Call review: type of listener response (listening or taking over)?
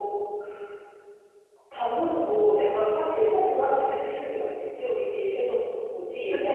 taking over